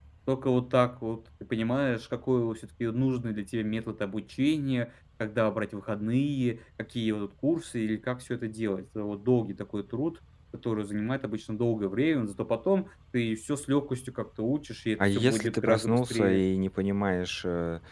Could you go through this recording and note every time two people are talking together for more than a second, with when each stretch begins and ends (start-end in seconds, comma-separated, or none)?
15.0-16.4